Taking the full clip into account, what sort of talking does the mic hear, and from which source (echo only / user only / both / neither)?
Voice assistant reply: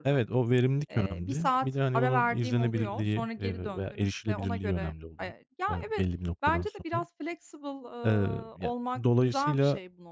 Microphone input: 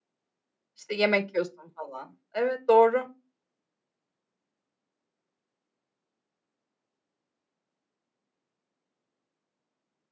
user only